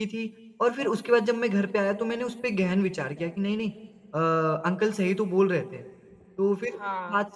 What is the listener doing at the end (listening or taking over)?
listening